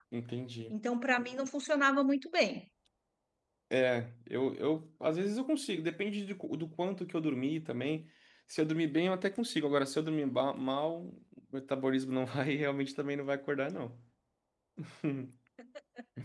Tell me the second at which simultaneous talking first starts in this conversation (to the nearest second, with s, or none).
none